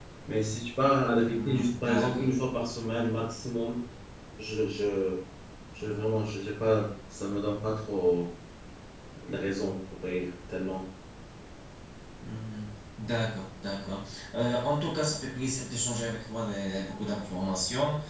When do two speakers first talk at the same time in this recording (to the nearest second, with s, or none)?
1 s